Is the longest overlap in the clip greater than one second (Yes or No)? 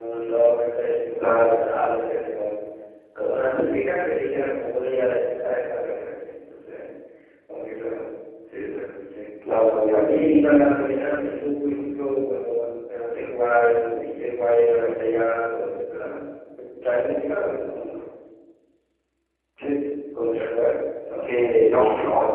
No